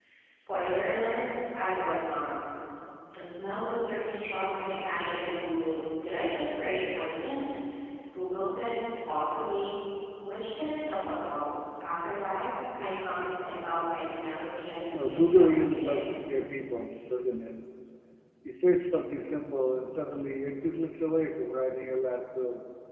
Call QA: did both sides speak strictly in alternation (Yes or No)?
No